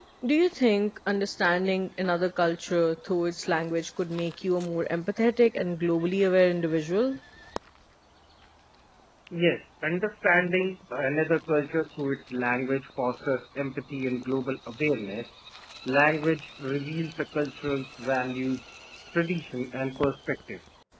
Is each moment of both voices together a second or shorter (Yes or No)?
Yes